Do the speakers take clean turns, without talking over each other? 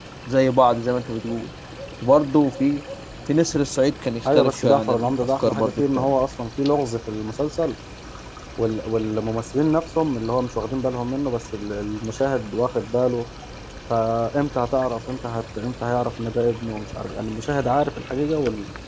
No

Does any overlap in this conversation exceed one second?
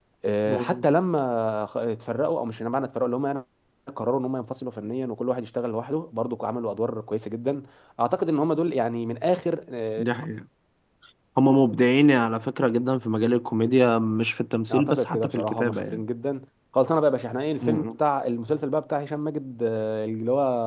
Yes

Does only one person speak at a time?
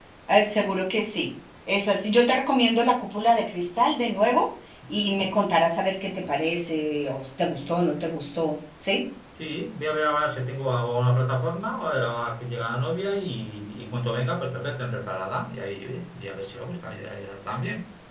Yes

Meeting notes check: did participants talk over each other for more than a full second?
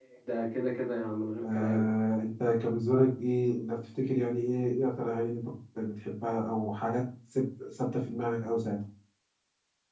No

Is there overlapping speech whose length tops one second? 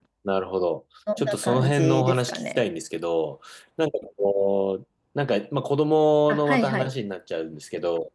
Yes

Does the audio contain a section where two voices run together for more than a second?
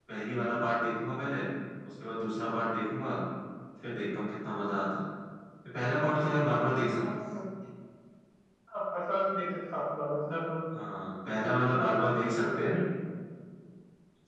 Yes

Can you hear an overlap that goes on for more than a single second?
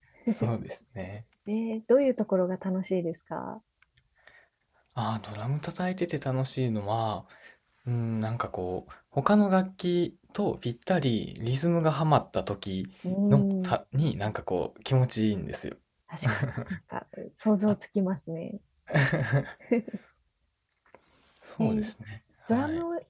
No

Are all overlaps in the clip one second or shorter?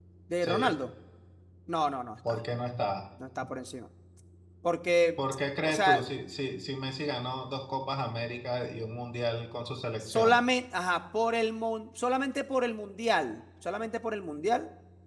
Yes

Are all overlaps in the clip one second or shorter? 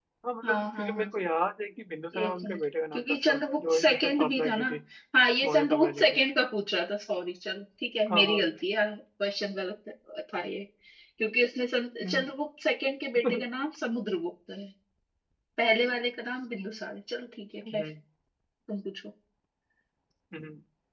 No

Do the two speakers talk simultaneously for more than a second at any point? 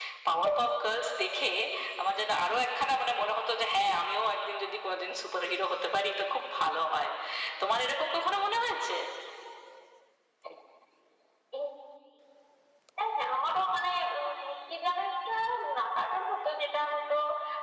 No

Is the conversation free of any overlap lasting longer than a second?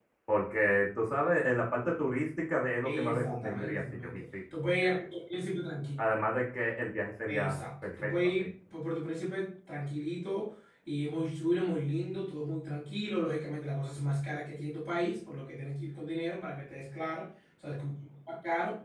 No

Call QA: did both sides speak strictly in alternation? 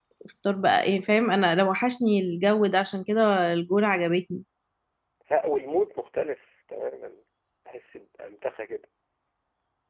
Yes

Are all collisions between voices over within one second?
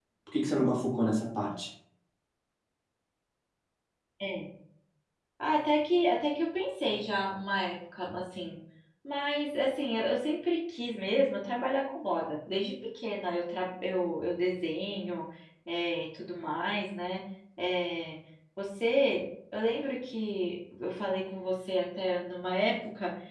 Yes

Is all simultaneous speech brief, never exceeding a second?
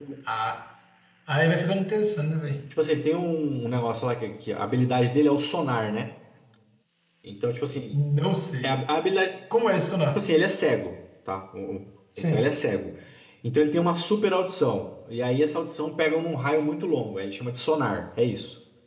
Yes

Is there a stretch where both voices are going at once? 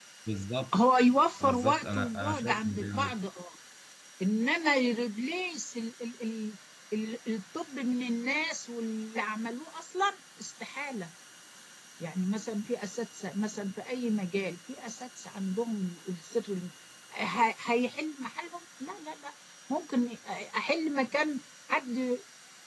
Yes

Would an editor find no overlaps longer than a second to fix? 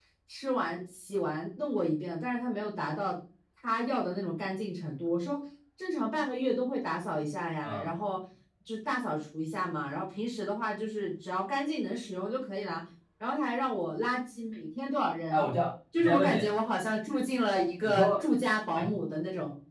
Yes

